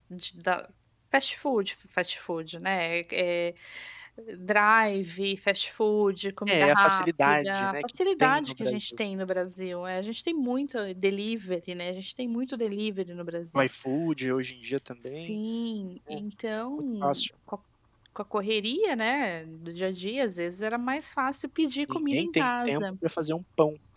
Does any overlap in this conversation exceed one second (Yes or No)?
Yes